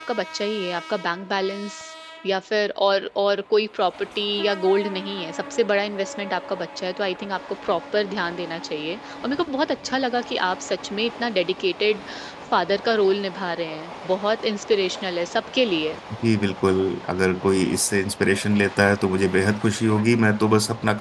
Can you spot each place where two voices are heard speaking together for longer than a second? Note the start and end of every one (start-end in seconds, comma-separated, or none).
none